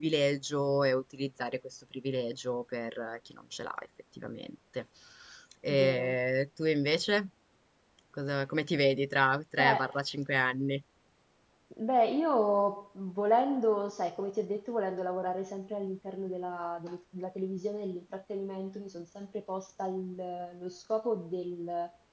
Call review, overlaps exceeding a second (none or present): none